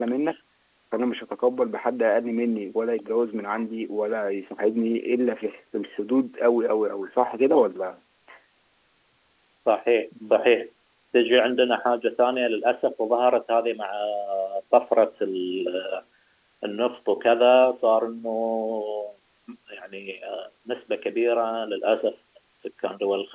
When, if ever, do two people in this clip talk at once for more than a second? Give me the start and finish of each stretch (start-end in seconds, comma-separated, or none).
none